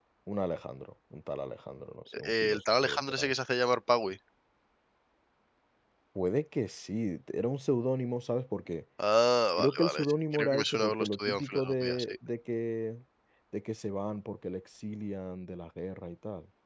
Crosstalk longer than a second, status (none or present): present